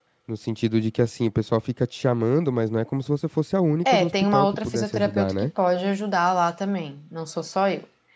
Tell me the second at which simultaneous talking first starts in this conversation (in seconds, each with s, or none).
3.9 s